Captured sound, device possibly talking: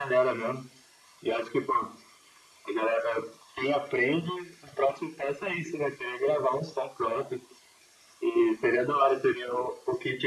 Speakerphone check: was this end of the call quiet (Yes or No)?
Yes